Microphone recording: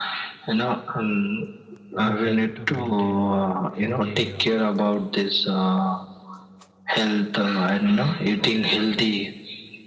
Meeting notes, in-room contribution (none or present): present